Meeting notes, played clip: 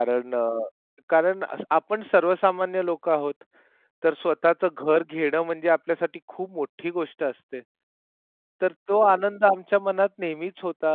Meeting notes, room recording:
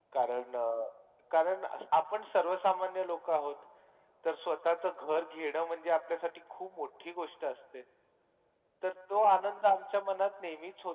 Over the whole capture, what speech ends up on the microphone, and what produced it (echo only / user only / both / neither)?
echo only